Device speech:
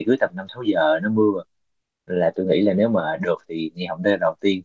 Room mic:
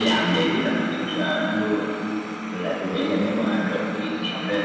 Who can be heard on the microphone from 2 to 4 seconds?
echo only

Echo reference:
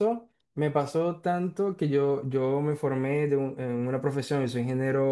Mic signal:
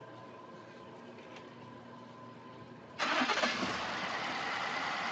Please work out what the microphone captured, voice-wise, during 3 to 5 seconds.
neither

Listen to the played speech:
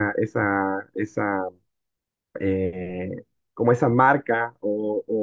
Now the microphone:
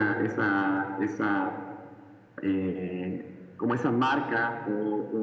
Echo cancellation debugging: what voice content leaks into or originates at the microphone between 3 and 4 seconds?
echo only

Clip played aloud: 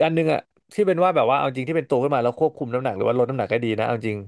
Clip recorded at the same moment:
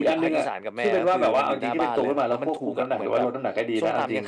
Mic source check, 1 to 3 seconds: both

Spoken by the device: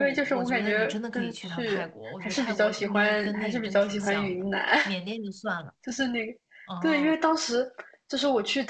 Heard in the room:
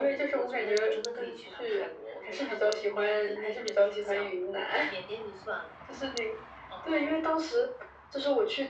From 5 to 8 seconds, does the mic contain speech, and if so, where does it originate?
echo only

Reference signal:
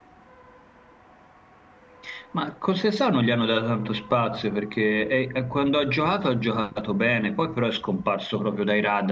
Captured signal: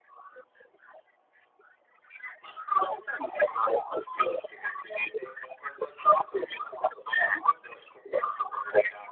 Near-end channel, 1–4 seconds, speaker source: echo only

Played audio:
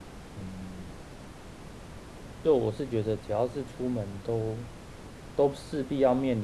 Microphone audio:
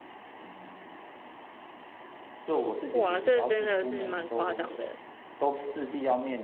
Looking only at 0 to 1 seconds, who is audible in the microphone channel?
echo only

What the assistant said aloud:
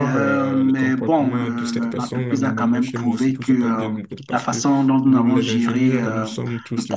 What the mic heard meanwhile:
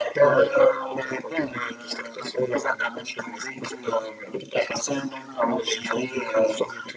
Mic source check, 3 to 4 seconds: echo only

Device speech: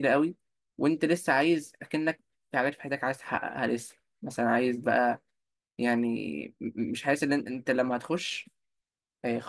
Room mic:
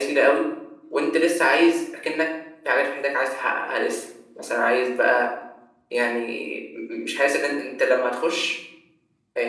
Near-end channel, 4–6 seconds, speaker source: echo only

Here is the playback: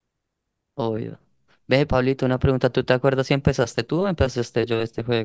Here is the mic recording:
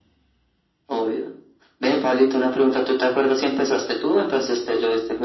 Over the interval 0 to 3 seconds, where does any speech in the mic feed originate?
echo only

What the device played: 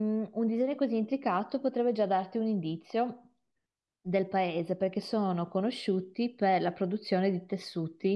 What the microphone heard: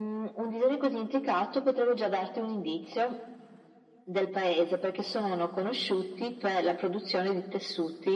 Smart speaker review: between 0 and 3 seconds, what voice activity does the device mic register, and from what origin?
echo only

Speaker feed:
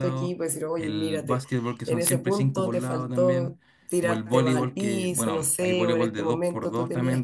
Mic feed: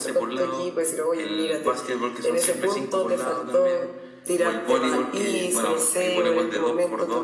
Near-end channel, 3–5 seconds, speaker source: echo only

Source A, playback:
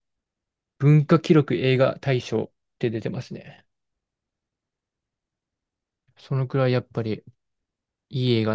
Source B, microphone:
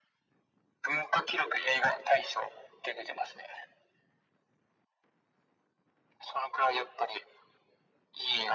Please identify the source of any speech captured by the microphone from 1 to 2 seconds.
echo only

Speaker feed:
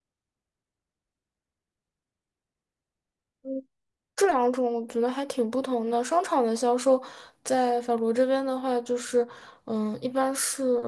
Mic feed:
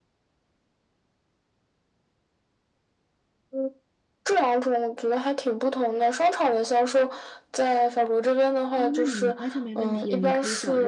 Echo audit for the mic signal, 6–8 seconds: echo only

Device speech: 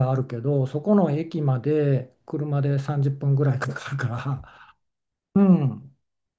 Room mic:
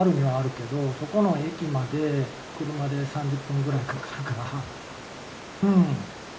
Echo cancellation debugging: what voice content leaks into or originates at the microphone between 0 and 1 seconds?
echo only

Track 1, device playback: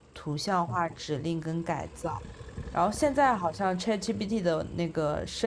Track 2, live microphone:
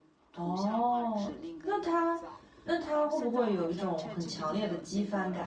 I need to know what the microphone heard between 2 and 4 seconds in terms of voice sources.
both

